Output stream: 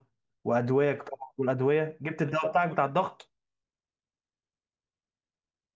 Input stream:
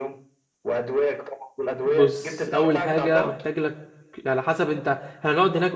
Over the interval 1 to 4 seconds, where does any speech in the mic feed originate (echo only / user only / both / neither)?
both